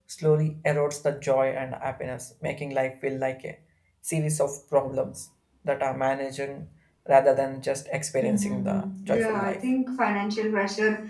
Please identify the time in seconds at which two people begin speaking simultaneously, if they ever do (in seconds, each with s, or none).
8.2 s